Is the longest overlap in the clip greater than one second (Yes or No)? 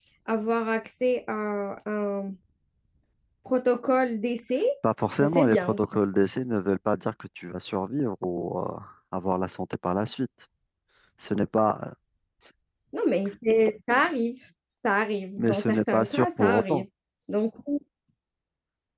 Yes